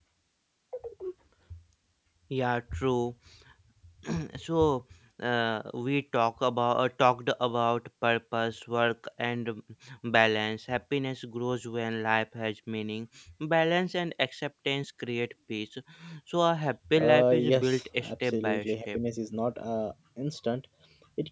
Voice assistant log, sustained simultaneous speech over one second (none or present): present